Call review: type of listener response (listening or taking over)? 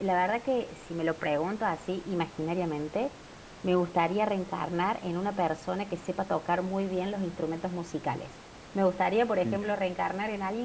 listening